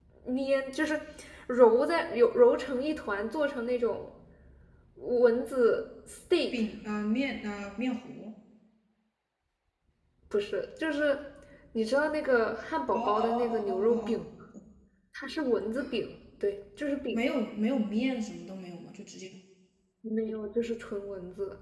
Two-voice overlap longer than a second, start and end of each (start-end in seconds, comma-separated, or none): 12.9-14.2